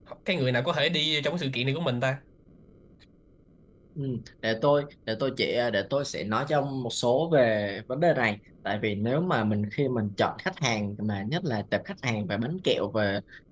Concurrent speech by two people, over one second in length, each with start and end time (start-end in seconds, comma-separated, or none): none